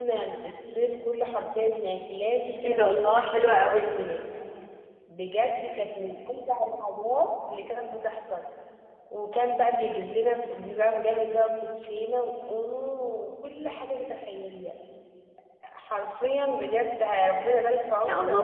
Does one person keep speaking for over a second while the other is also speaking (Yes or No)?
Yes